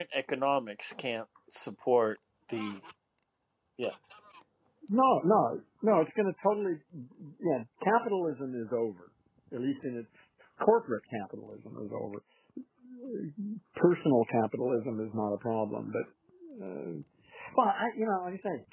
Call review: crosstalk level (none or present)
none